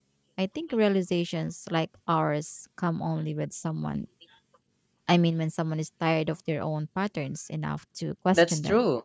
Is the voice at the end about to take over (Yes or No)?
Yes